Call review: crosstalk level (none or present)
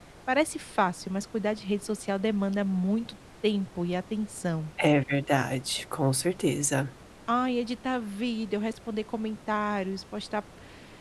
none